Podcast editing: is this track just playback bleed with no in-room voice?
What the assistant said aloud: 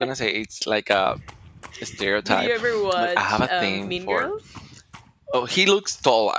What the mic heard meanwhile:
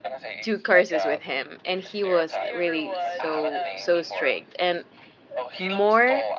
No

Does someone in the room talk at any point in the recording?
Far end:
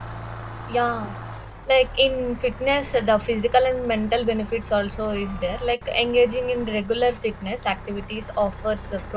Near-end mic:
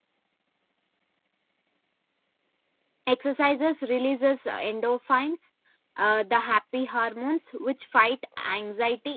Yes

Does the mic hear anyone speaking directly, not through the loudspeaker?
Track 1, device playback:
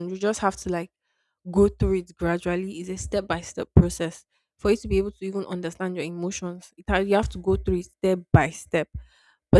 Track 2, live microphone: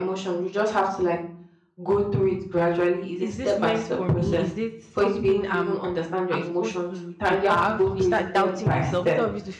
Yes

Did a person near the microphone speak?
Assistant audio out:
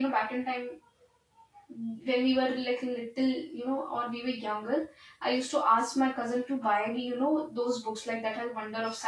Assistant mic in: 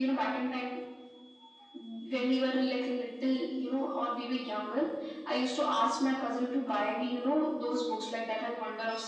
No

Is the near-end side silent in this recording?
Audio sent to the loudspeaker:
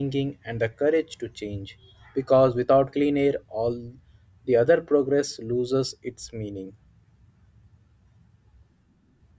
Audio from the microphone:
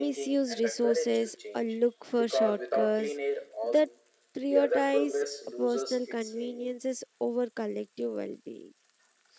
No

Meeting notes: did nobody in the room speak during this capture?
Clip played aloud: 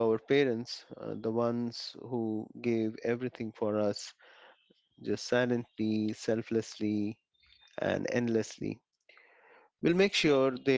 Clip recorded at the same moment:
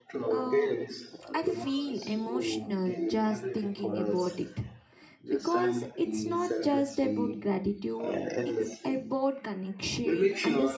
No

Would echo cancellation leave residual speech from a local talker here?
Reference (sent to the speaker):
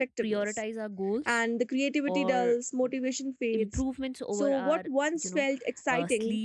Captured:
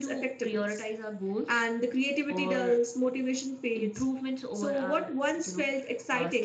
No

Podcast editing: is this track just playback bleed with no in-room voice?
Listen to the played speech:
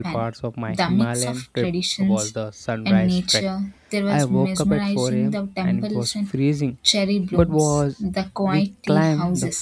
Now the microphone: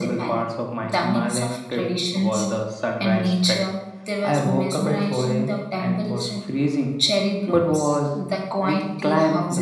Yes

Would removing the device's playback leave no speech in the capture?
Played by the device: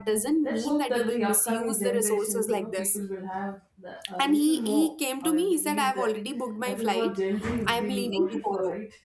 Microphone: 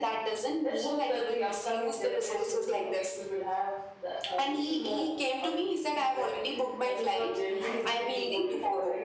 Yes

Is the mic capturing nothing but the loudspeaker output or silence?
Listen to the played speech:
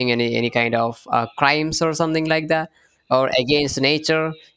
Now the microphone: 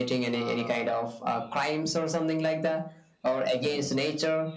No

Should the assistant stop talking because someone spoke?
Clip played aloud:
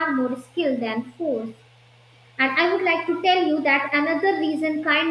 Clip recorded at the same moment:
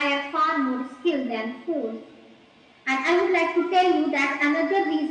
No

